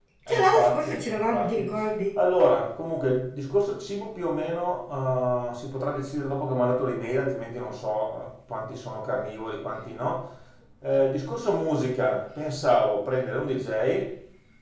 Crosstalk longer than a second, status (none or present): present